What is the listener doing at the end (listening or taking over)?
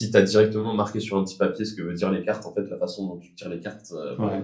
listening